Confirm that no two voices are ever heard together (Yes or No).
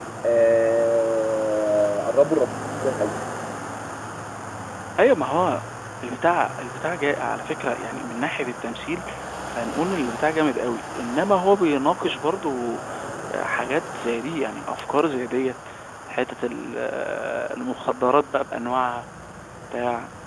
Yes